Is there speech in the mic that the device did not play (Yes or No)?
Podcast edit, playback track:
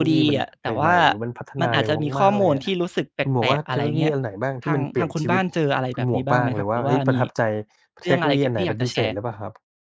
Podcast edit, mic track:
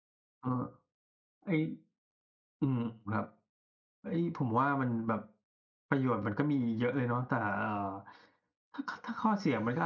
Yes